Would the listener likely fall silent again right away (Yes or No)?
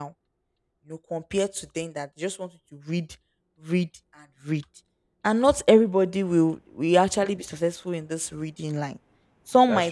Yes